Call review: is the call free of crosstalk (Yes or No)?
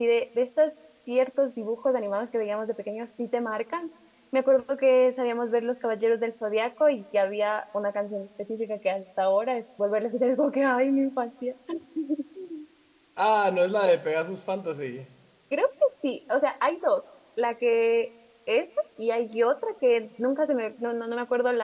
Yes